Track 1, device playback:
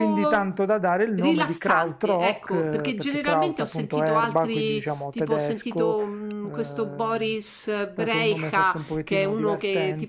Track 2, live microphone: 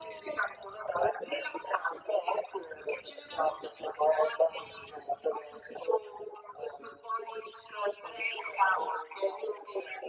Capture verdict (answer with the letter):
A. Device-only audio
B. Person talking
A